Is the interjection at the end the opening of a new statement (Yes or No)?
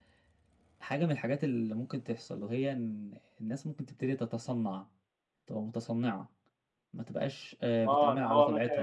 Yes